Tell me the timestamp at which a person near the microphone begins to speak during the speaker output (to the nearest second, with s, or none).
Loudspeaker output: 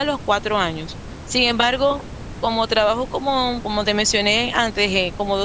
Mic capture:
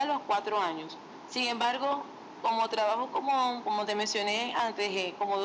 none